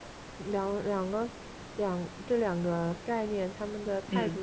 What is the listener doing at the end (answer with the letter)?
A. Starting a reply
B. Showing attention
B